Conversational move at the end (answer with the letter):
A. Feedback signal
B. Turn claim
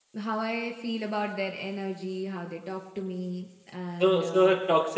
B